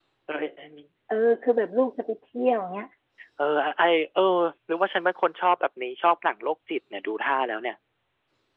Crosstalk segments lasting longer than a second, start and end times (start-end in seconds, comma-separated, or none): none